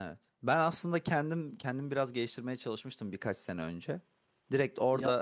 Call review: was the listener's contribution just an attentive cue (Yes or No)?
Yes